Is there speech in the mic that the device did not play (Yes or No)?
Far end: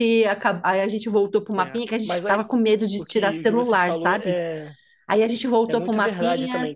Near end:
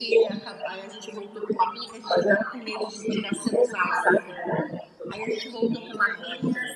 No